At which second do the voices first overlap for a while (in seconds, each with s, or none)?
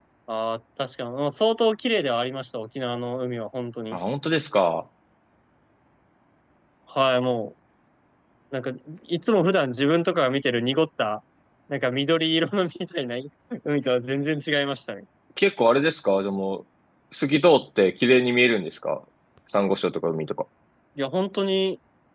none